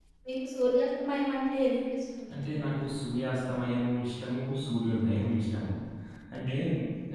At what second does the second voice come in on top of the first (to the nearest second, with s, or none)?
none